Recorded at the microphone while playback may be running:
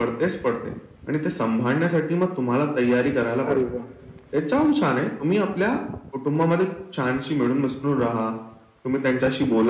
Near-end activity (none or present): present